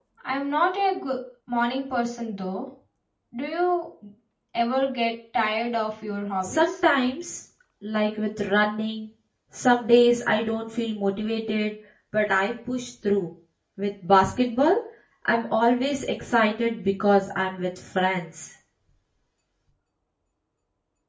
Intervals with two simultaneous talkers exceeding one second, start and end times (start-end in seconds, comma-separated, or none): none